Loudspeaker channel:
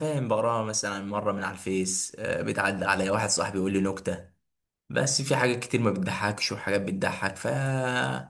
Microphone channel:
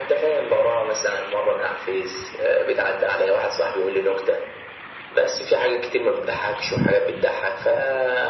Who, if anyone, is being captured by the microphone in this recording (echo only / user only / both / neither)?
echo only